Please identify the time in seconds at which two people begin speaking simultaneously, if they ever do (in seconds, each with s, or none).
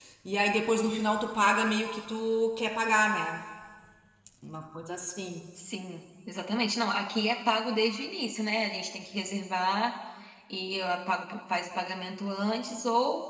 none